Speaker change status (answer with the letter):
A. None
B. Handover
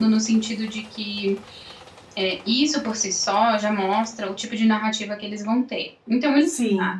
A